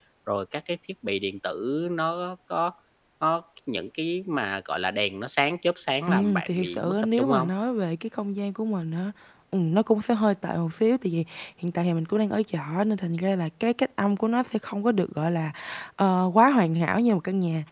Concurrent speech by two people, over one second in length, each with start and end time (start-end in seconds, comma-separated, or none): 6.1-7.5